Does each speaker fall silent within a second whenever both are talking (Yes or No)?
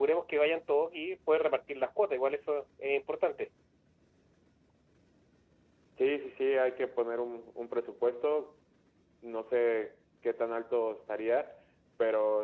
Yes